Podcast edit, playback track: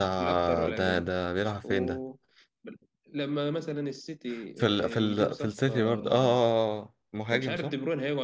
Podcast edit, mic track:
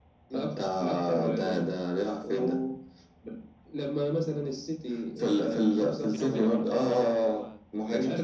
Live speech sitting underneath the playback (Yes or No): Yes